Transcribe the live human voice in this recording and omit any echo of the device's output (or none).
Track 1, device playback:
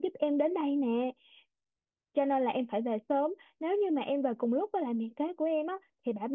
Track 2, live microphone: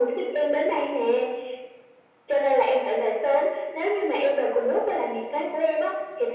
none